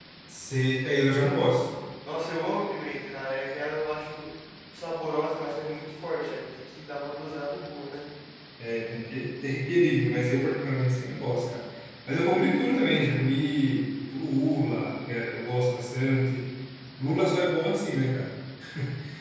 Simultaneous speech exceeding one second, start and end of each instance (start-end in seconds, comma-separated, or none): none